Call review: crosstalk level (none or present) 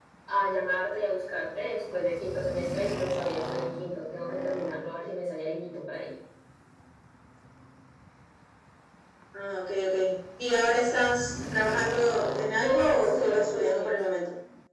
present